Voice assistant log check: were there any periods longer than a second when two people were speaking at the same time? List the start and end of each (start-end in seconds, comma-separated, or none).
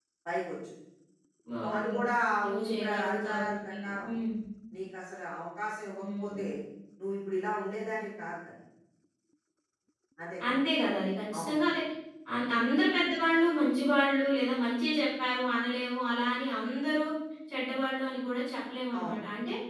2.4-4.1